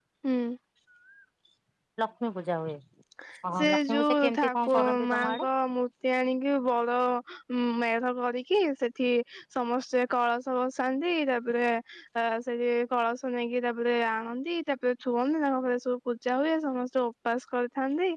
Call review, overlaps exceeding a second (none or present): present